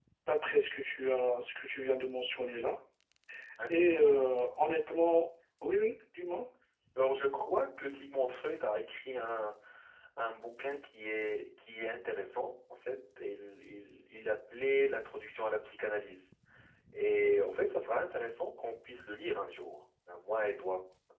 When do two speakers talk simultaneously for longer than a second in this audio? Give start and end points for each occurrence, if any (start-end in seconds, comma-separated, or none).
none